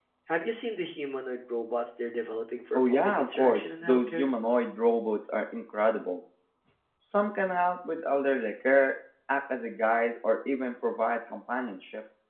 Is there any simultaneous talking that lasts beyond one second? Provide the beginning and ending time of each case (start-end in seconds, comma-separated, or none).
2.7-4.3